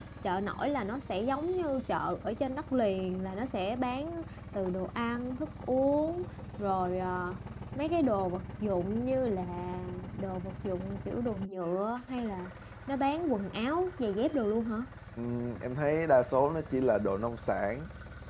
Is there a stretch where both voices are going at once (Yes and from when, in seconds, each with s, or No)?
No